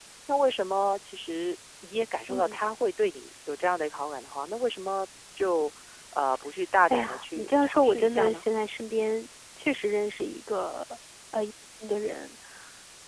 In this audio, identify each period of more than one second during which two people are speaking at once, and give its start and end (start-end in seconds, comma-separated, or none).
6.9-8.4